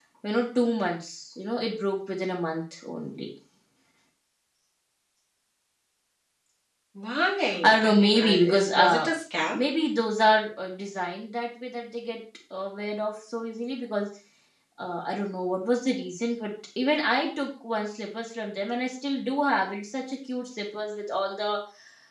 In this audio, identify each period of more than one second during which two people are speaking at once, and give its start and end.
7.6-9.1

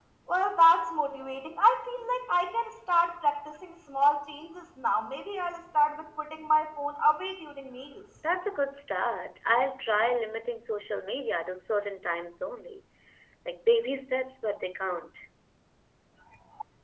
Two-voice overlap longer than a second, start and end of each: none

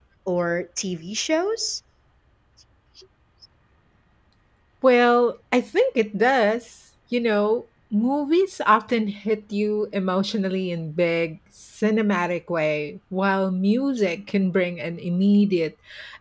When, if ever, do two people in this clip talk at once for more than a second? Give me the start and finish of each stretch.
none

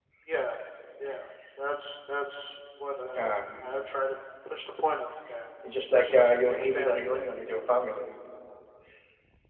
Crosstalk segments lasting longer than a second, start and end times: 5.9-7.2

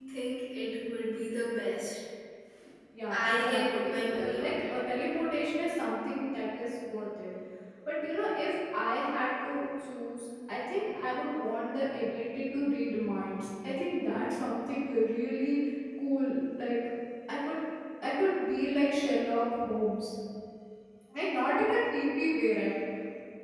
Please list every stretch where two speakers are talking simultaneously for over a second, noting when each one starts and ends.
3.1-4.7

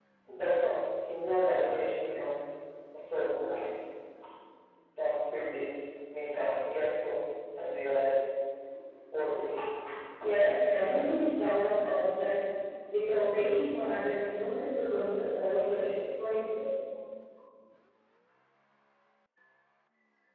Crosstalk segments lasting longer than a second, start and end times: none

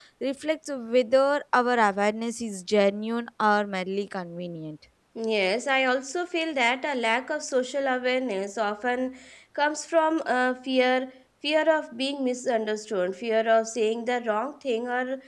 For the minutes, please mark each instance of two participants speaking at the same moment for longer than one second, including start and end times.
none

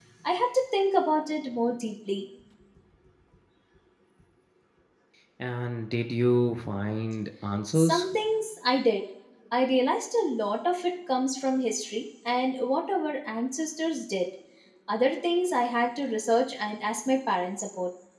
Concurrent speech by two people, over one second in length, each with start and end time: none

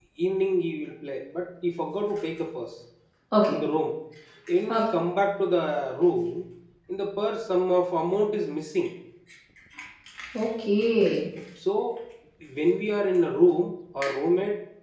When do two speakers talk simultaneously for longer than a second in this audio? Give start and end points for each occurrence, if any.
none

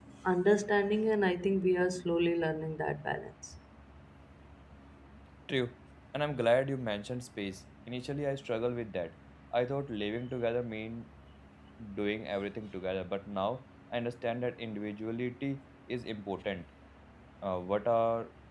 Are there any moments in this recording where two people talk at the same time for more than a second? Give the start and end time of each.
none

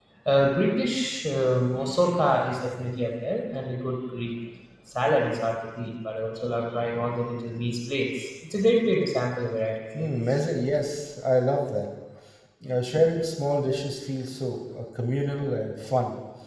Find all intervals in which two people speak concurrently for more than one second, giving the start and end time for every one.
none

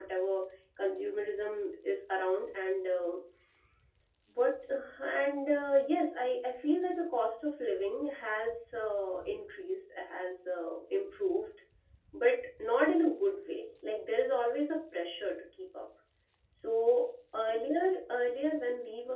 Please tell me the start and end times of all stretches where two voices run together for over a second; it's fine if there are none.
none

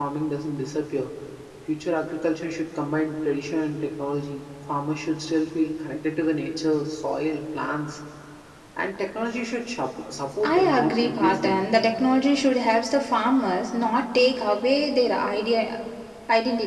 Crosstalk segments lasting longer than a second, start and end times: 10.4-11.7

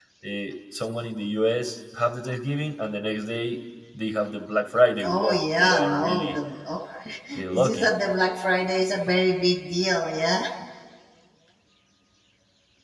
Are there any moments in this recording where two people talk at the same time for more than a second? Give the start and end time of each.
5.0-6.4

